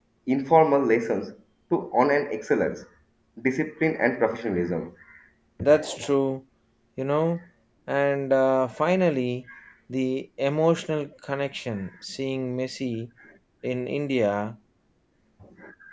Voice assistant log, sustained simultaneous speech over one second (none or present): none